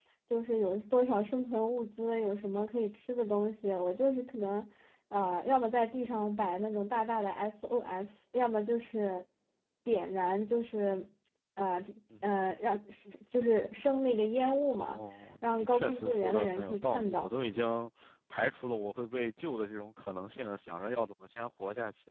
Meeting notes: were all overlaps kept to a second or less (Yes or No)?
No